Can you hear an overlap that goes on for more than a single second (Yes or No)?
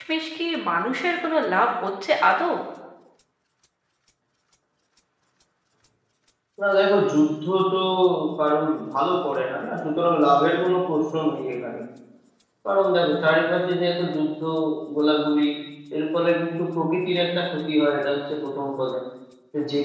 No